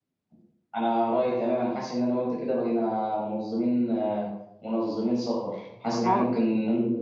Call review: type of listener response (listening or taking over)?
listening